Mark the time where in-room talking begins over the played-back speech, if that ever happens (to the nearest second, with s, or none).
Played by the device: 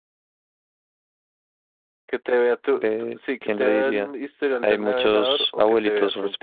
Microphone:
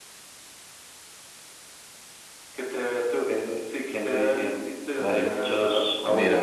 5 s